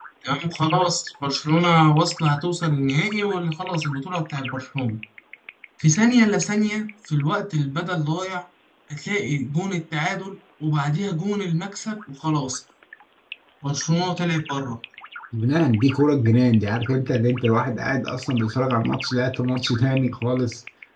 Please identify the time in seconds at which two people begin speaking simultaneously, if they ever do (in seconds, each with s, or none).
none